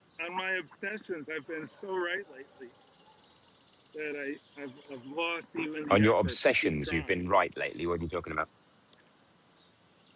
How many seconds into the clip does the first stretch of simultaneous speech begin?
6 s

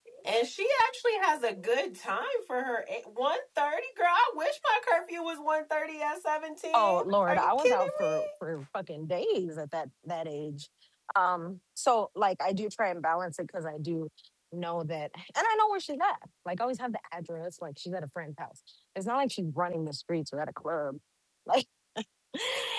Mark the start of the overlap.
7 s

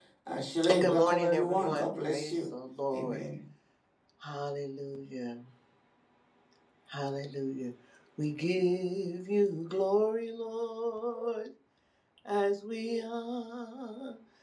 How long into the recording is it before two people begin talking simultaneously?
1 s

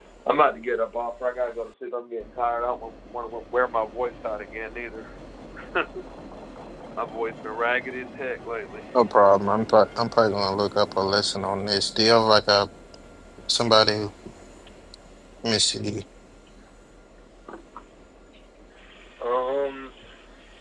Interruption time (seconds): none

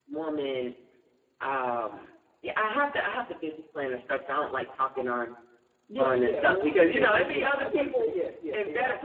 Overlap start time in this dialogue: 6 s

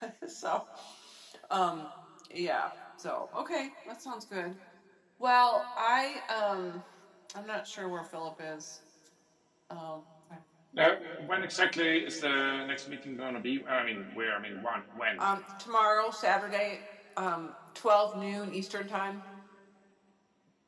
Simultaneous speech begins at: none

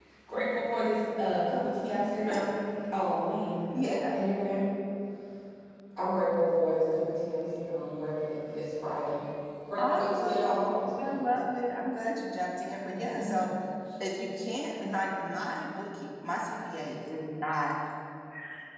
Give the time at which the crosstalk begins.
10 s

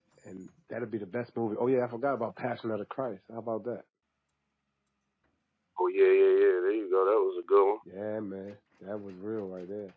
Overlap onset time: none

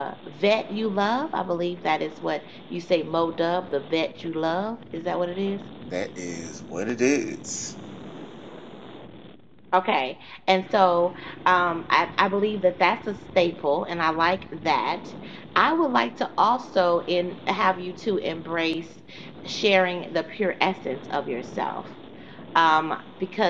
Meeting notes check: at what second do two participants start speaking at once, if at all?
none

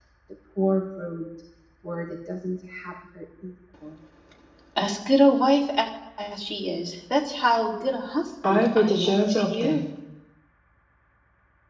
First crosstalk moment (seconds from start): 8 s

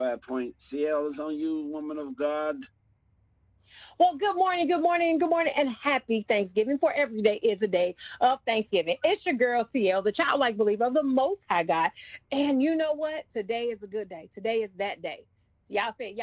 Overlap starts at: none

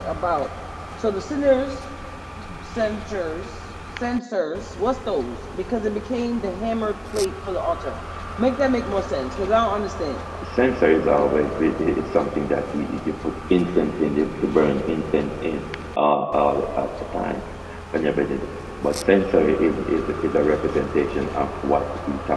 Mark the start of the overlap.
none

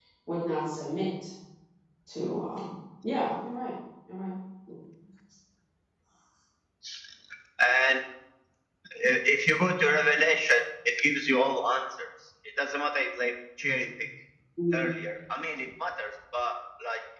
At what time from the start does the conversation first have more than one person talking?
none

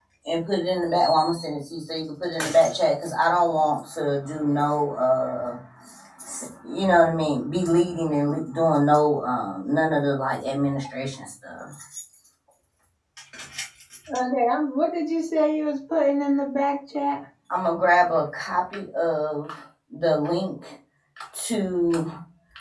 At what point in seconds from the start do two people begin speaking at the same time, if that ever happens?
none

